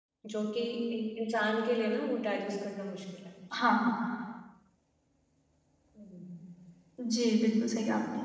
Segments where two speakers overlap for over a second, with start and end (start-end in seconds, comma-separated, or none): none